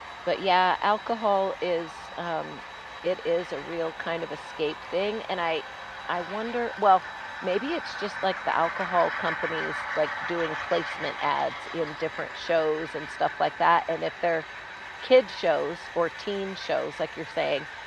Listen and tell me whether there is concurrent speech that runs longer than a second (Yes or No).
No